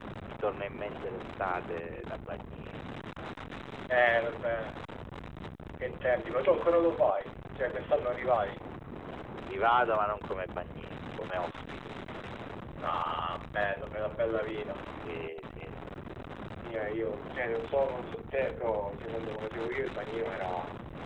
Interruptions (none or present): none